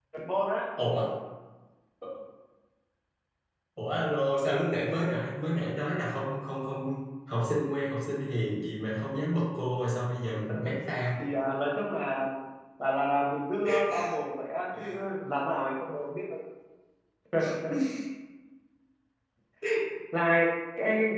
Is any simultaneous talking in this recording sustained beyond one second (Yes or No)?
No